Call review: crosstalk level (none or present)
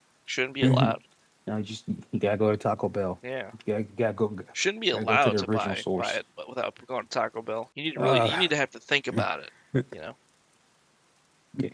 present